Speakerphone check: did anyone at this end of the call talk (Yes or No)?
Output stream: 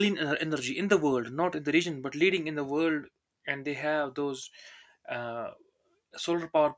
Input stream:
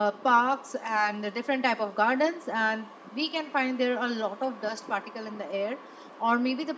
Yes